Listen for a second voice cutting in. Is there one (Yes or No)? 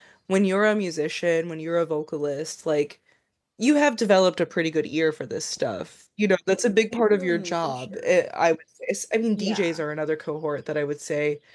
Yes